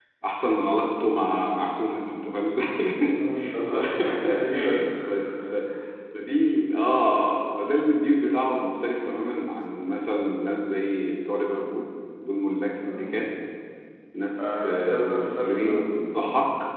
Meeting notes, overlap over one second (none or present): present